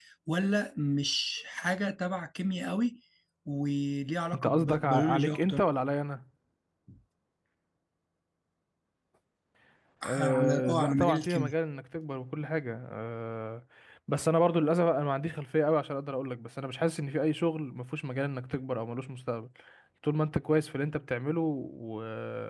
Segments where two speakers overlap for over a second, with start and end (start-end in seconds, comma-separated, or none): 4.3-5.6, 10.0-11.5